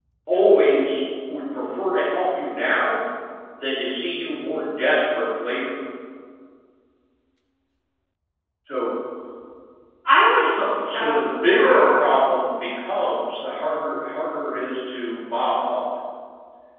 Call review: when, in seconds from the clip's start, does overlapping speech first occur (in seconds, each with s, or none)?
10.8 s